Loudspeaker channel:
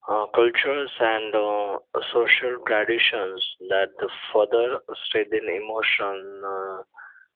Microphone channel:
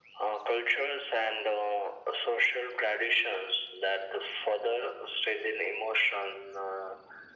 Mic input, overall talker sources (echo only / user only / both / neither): echo only